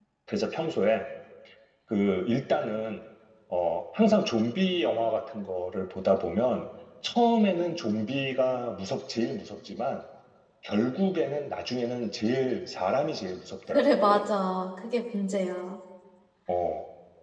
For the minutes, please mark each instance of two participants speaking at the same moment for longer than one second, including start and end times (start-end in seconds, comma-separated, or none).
none